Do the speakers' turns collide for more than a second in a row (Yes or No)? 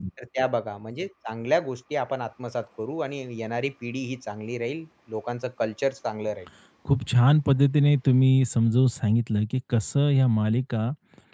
No